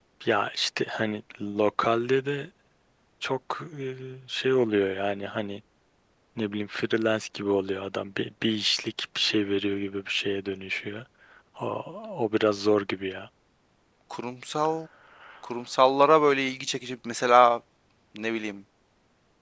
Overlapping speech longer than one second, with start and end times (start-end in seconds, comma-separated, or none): none